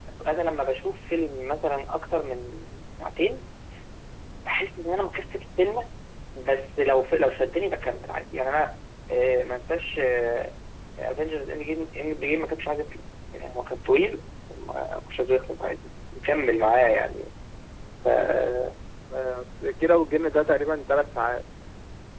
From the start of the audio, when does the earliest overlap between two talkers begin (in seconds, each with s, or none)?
none